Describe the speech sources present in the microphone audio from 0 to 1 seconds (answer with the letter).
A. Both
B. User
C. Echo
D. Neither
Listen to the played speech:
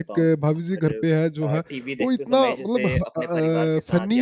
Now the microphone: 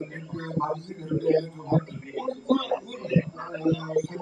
C